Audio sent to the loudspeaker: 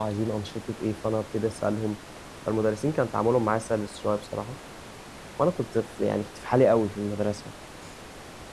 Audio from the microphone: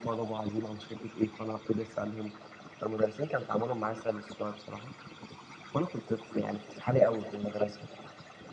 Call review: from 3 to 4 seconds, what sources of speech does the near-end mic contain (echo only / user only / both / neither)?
echo only